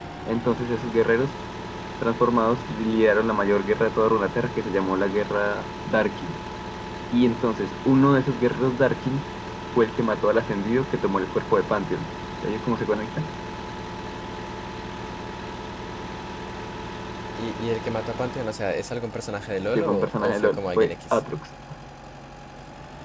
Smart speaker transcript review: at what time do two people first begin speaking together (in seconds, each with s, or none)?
19.8 s